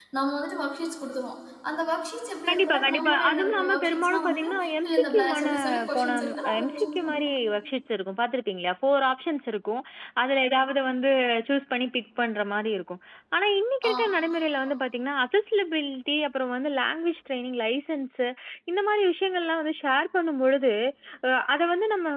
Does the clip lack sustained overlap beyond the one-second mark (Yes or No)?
No